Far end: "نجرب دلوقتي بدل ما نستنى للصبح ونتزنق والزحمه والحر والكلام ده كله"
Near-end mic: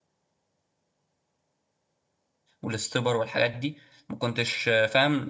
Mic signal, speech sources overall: user only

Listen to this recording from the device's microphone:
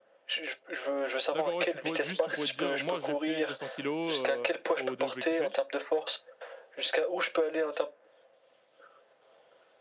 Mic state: both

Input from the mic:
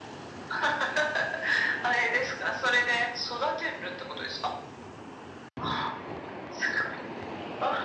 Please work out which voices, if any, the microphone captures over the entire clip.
echo only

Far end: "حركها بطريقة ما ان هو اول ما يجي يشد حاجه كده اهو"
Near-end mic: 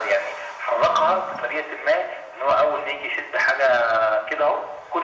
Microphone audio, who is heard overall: both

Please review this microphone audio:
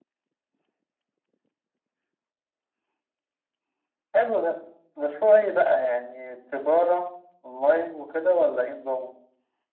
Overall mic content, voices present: echo only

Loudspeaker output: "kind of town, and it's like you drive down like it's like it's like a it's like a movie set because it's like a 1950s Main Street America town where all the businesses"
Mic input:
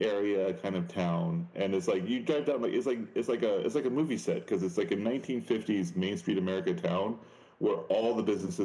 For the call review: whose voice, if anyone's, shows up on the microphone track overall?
echo only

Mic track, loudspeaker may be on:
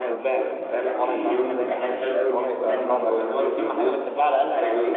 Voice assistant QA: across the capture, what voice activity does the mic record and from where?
both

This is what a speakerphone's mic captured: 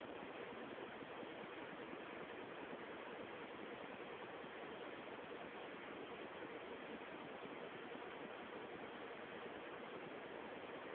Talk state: neither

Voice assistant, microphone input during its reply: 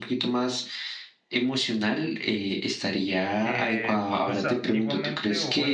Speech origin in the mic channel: both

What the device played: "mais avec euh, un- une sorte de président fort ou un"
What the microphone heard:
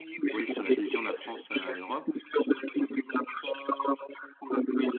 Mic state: both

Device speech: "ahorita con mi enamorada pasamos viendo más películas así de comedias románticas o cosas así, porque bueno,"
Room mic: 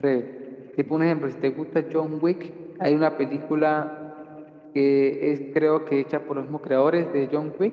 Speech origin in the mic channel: user only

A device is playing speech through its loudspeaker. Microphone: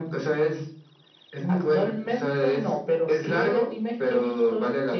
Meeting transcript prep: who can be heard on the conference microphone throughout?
echo only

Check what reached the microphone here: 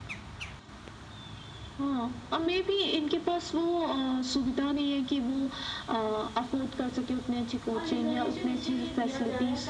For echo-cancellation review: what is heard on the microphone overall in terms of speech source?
both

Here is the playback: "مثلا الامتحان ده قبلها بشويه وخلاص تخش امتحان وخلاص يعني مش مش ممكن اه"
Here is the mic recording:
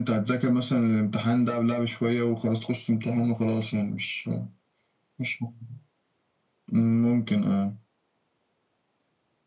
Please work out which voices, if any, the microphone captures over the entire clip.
echo only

